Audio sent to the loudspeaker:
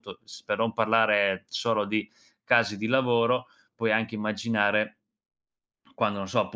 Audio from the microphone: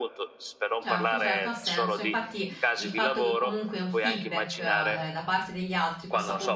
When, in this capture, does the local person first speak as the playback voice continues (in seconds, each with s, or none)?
0.8 s